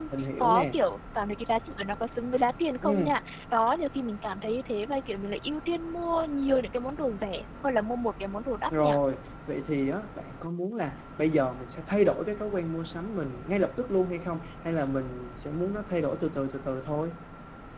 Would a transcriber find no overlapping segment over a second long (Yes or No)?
Yes